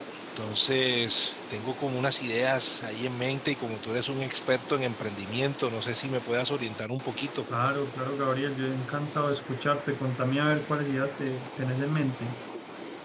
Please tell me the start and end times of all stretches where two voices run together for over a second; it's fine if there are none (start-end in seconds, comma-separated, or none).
none